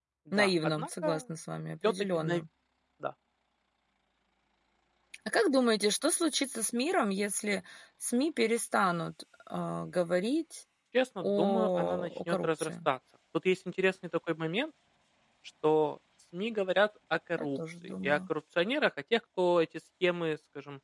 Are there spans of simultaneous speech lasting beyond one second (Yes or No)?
Yes